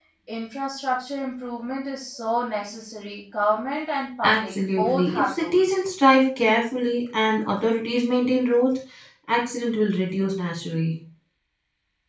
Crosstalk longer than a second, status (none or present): present